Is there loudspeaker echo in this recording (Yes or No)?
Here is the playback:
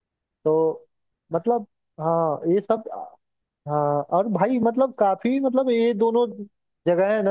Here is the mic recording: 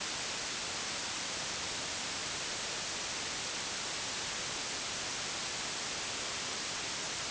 No